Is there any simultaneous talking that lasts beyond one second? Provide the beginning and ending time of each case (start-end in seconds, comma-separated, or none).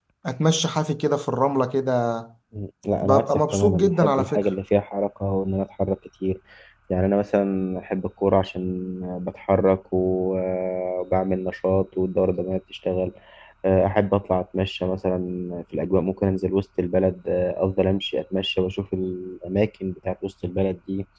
3.0-4.4